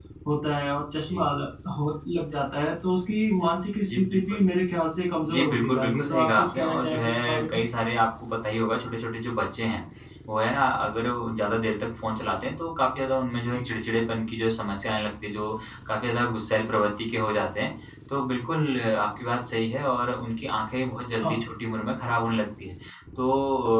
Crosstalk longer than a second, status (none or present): present